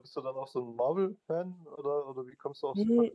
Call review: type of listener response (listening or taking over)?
taking over